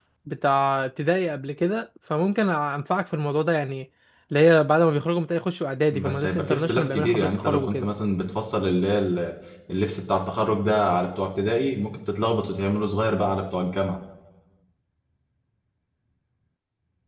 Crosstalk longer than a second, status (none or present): present